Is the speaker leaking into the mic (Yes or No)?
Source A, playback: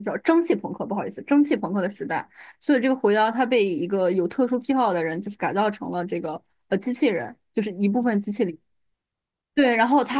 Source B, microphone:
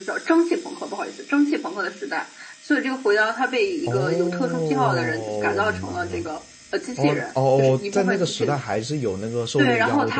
Yes